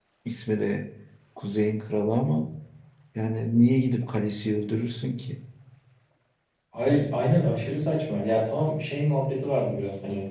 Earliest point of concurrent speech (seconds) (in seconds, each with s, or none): none